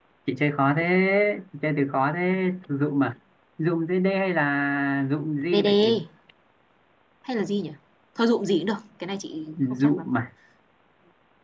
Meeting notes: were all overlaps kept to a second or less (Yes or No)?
Yes